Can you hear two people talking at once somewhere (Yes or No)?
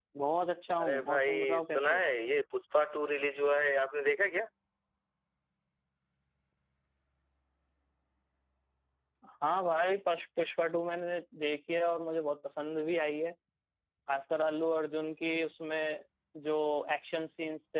Yes